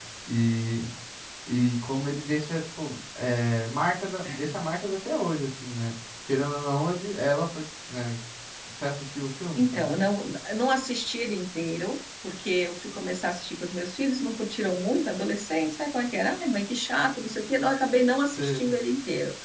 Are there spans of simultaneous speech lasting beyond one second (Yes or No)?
No